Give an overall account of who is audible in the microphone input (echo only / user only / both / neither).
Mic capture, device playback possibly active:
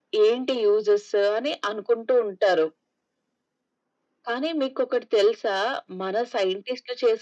echo only